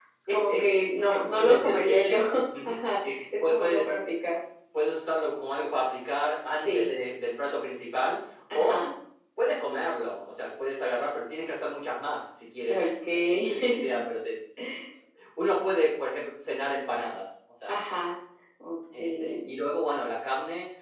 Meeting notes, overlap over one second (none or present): present